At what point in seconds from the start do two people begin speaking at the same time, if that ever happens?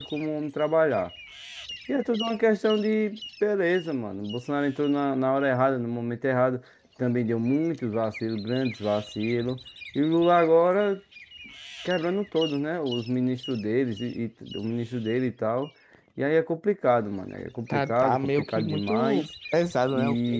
17.7 s

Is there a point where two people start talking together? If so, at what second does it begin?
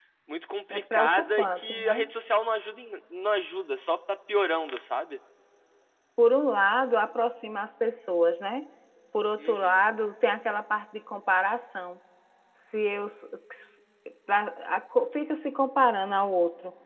0.7 s

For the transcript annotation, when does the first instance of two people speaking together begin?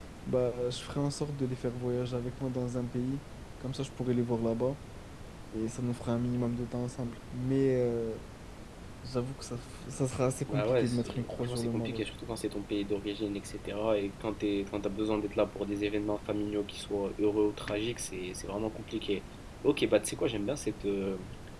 10.5 s

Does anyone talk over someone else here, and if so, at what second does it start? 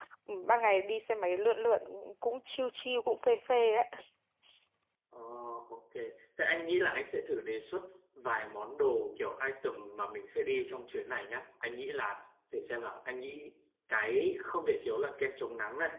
none

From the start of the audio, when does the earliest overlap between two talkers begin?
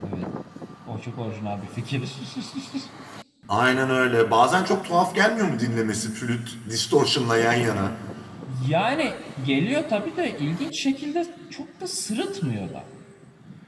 none

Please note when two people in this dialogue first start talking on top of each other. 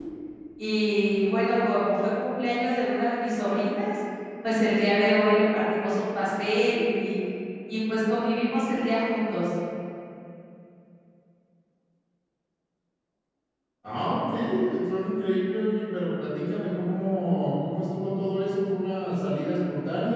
none

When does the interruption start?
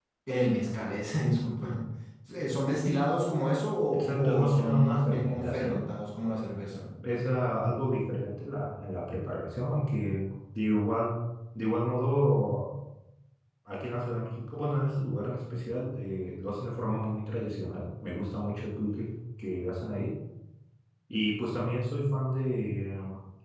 3.9 s

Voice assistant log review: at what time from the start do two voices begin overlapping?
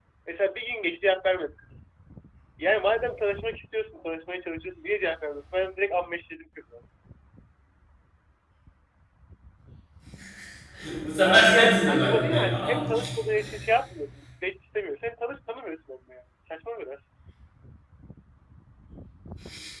11.2 s

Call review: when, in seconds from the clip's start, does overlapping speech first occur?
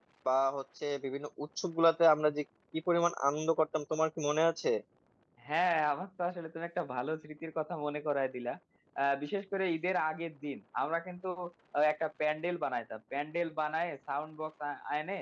none

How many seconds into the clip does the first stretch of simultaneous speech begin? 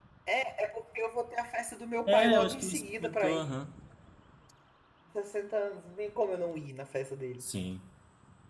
2.1 s

